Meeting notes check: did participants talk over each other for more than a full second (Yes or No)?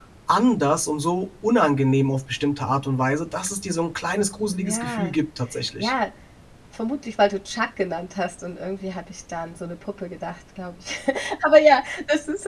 No